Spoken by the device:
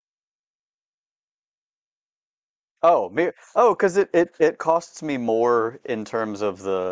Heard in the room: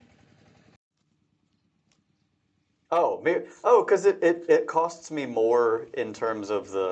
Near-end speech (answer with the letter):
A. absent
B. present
A